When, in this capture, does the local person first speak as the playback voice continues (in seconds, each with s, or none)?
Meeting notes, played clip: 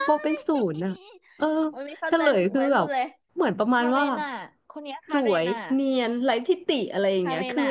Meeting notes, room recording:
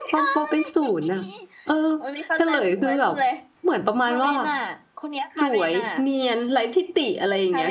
none